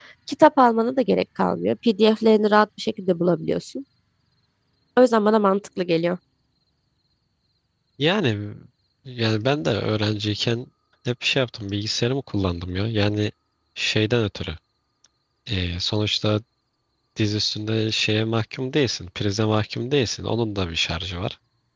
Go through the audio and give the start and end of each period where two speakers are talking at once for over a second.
none

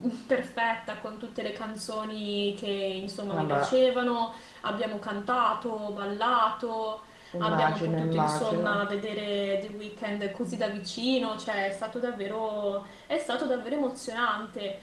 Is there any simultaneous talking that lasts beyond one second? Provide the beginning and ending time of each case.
7.4-8.8

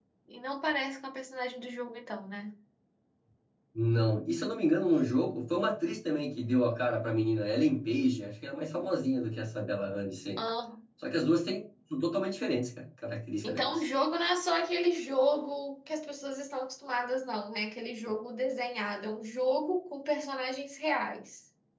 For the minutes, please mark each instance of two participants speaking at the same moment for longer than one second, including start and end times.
none

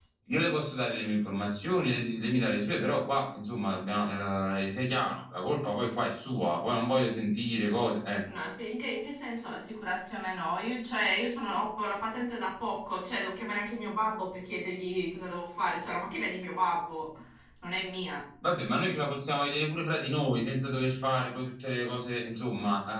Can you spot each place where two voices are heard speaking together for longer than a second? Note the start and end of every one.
none

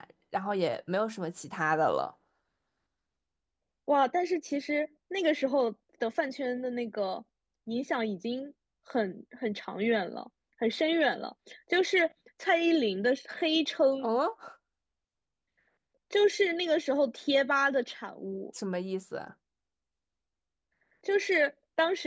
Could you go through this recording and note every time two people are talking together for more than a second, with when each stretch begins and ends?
none

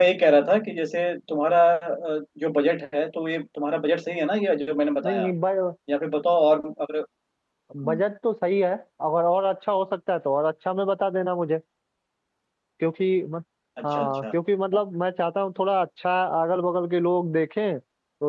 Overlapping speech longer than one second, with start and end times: none

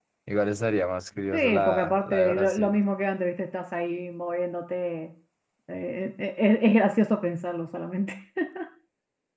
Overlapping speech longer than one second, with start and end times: 1.3-2.8

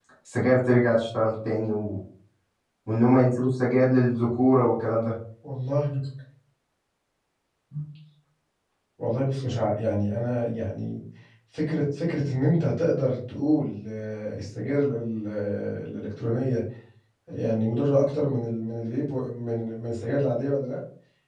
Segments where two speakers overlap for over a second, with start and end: none

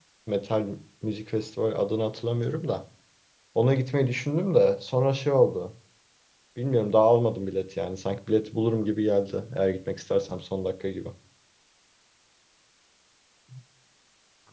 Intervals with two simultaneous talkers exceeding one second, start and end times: none

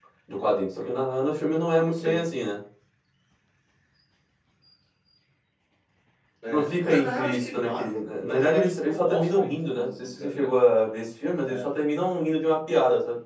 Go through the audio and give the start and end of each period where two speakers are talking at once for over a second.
6.5-10.5

